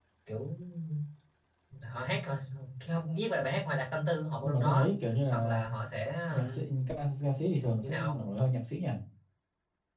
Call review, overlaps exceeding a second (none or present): none